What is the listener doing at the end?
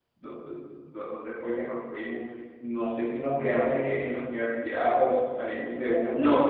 taking over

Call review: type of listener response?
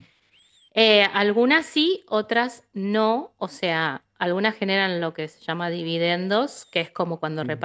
listening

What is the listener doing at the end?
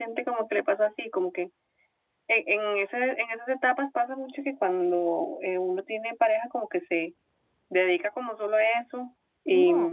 listening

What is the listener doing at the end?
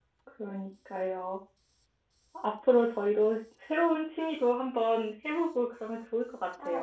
taking over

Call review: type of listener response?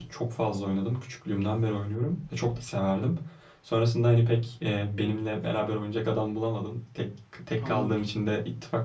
listening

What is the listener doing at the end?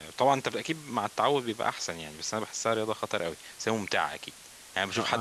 taking over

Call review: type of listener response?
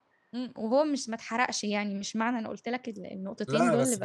taking over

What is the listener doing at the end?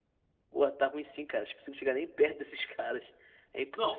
taking over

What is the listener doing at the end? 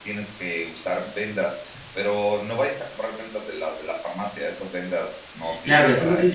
taking over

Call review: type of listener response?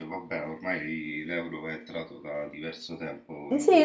taking over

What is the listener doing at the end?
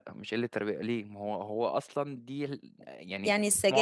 taking over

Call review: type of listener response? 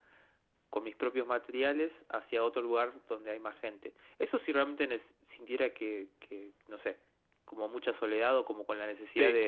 listening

